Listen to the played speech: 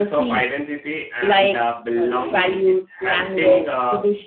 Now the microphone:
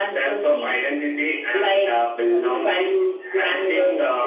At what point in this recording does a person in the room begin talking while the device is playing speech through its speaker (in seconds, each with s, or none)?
none